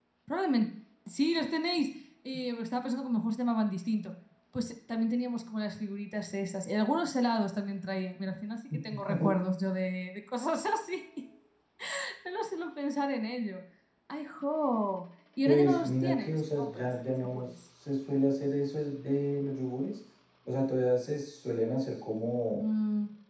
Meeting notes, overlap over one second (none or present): present